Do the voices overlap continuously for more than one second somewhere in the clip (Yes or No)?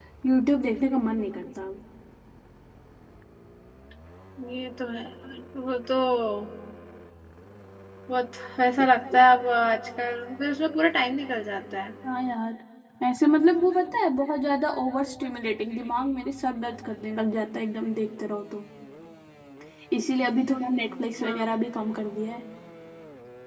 No